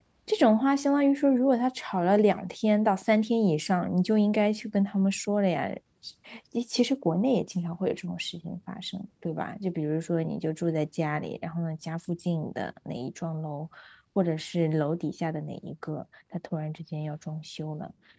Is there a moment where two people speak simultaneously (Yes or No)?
No